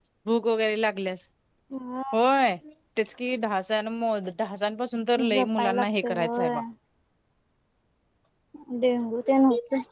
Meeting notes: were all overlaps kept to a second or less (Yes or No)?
No